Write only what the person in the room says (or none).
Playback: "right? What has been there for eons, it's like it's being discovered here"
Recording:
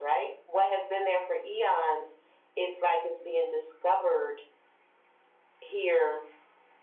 none